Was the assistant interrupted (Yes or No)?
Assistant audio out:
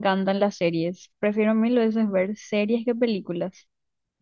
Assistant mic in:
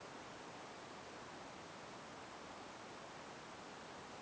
No